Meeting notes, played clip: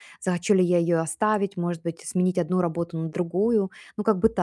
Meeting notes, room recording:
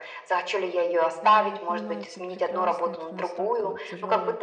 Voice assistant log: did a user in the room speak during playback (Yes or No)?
Yes